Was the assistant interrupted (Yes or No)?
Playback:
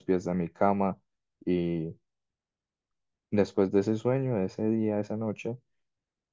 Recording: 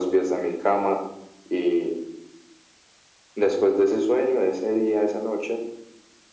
No